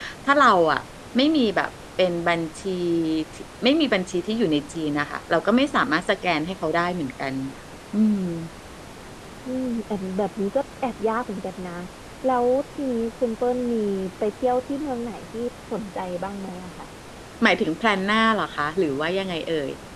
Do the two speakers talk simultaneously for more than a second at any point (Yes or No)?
No